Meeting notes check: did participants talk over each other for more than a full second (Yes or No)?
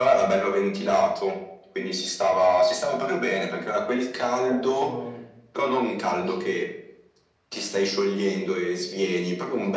No